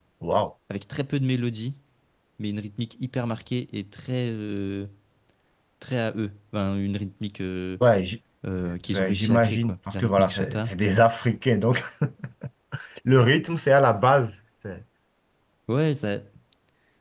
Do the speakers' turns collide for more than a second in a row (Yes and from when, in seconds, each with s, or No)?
Yes, from 8.9 s